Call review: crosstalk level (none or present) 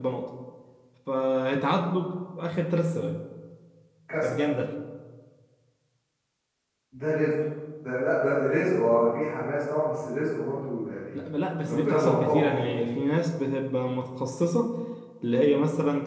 present